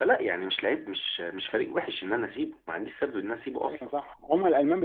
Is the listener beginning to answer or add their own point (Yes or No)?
Yes